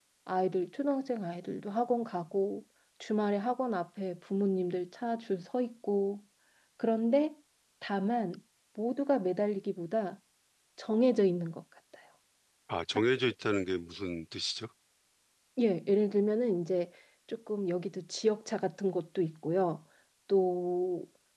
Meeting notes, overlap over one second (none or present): none